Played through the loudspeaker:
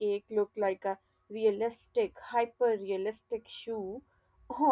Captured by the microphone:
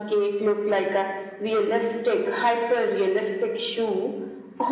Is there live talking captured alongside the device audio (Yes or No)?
No